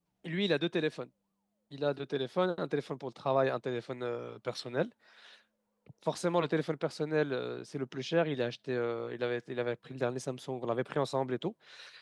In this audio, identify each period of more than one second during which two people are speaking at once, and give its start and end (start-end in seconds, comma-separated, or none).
none